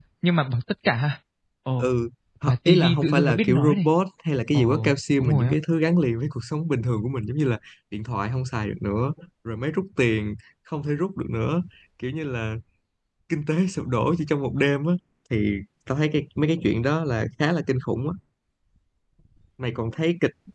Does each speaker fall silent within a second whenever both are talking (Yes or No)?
No